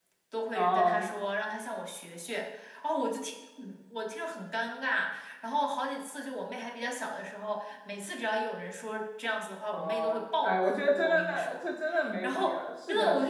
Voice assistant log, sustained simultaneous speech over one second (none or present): present